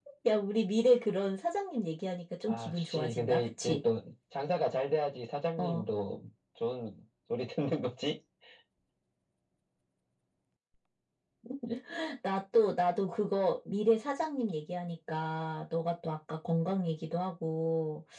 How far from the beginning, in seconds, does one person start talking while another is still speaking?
2.5 s

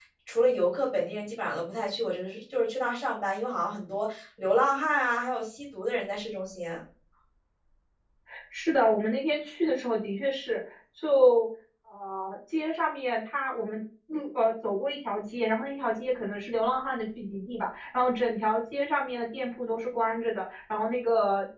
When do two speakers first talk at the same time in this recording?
none

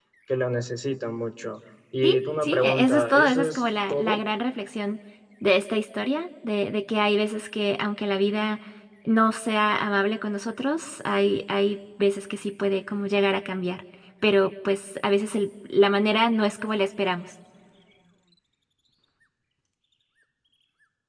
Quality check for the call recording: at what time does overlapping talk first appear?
2.0 s

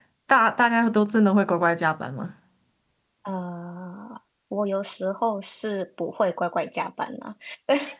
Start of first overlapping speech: none

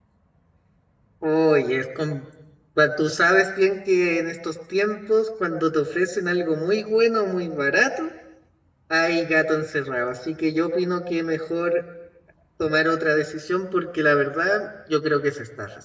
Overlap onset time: none

